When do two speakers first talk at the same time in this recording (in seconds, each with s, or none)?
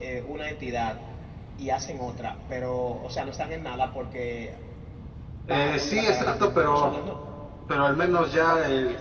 5.5 s